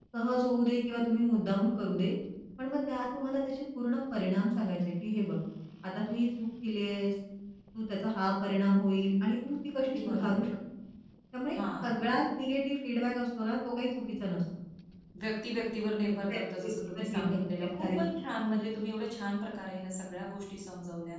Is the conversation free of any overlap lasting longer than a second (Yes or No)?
No